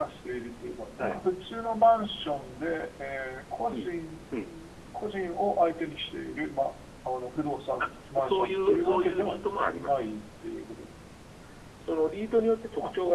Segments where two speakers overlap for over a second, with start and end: 7.8-9.4

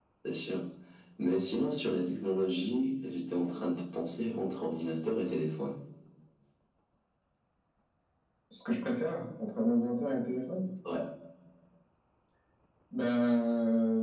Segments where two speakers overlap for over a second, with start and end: none

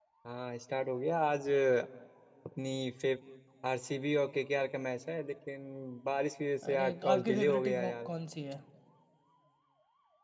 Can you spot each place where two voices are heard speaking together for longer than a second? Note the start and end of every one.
6.7-8.1

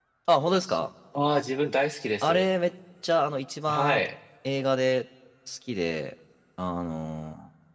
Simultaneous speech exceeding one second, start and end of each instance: none

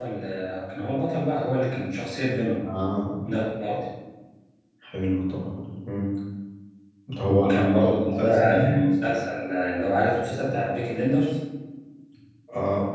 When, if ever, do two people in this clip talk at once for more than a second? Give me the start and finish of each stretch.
7.2-8.6

